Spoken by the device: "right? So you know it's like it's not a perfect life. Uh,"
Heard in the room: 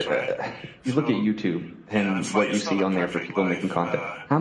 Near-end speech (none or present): present